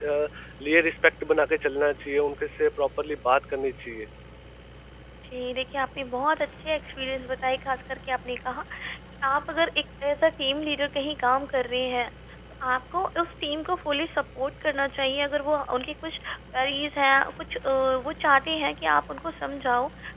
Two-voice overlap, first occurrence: none

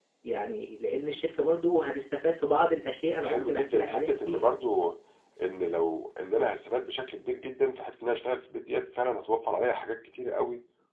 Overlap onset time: 3 s

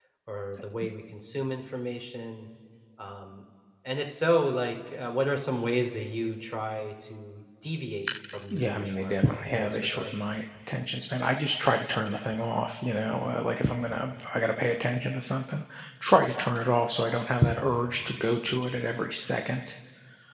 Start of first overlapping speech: 9 s

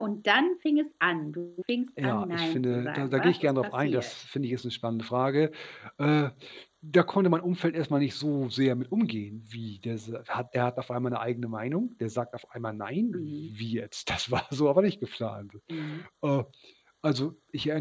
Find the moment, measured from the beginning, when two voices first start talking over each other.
2 s

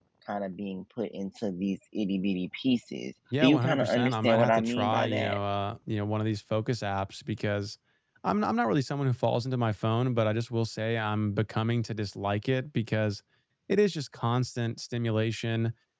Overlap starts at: 3 s

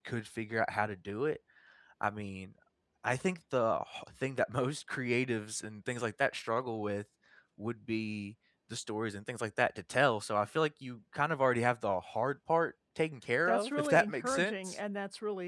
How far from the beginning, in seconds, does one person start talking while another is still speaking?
13 s

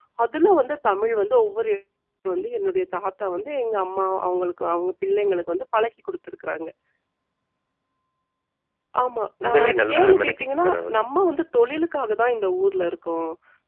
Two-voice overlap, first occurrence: 9 s

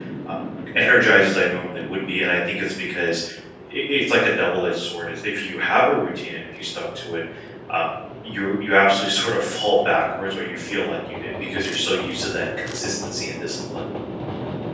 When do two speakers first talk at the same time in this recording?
none

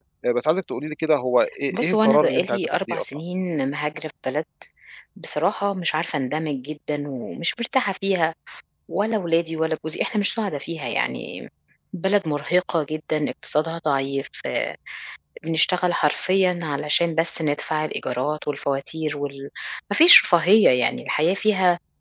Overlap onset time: 2 s

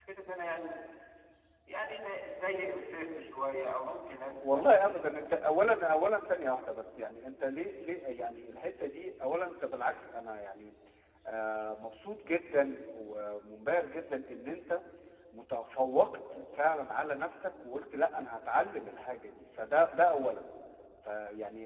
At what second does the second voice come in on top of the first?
none

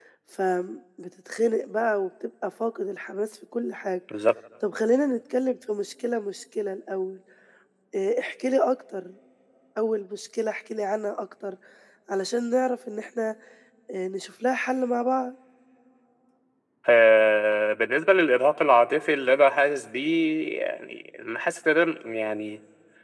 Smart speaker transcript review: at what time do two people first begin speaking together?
none

